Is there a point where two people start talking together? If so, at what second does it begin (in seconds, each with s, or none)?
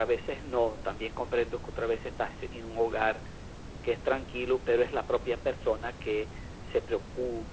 none